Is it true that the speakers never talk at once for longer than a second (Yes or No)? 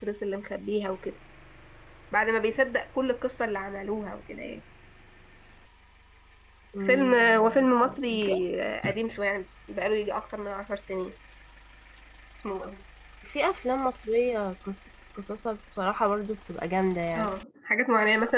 No